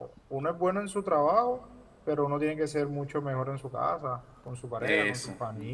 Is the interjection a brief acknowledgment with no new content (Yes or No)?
No